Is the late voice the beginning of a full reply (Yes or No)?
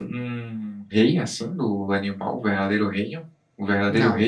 Yes